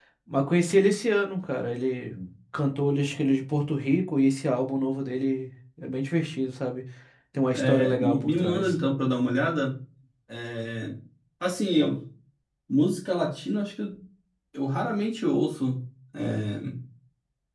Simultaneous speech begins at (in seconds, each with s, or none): 7.5 s